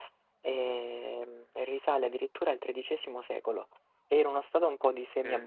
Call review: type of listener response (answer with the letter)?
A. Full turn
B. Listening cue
B